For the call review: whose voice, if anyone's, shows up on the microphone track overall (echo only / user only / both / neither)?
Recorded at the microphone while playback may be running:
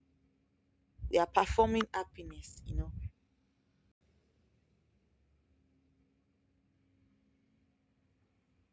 user only